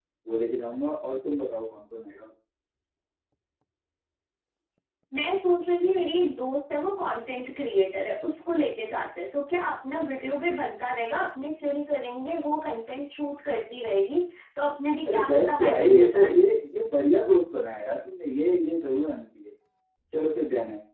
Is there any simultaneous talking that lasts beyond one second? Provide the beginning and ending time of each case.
15.1-16.3

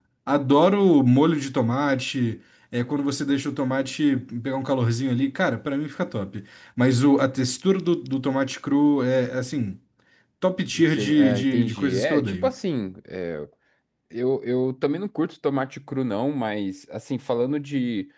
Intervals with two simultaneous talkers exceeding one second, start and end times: 10.8-12.5

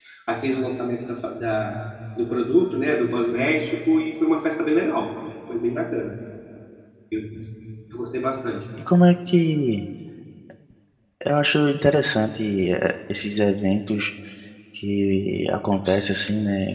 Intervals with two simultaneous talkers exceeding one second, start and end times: none

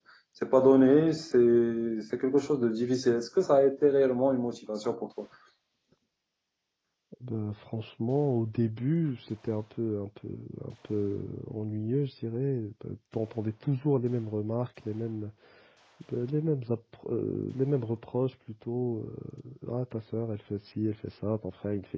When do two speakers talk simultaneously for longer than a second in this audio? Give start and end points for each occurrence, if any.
none

